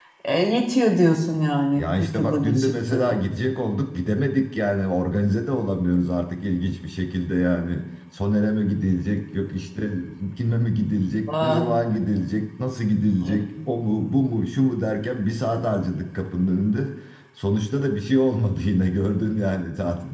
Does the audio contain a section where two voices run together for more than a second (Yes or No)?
Yes